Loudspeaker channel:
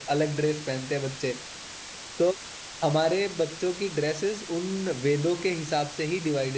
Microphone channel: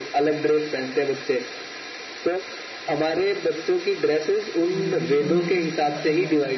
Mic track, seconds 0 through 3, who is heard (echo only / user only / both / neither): echo only